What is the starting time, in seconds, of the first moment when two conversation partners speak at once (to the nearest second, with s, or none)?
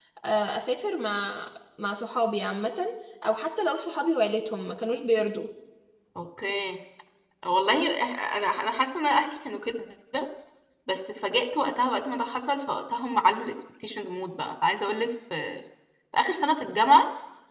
none